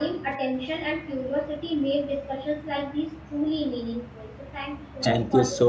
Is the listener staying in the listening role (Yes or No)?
No